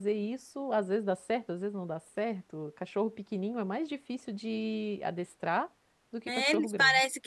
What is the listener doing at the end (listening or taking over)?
taking over